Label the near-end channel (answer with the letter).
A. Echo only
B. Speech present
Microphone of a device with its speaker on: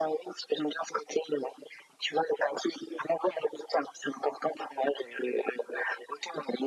A